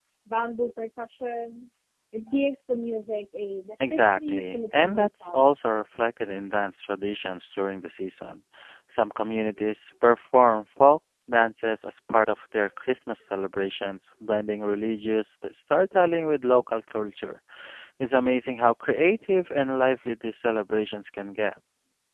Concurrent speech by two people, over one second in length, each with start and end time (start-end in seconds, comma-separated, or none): 3.9-5.4